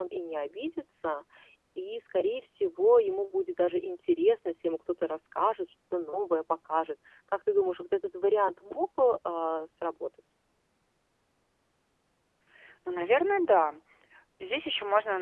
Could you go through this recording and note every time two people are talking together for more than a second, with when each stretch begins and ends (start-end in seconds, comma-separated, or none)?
none